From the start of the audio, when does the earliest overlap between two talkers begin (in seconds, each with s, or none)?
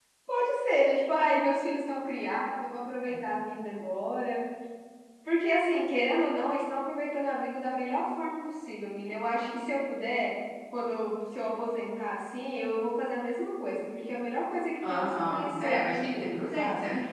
14.8 s